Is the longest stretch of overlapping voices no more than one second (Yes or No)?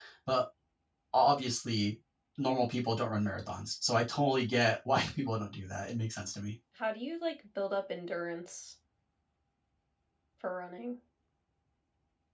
Yes